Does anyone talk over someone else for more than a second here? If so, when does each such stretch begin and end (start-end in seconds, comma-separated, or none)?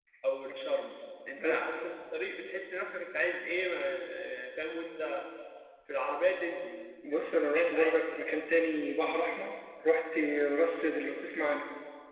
7.1-8.5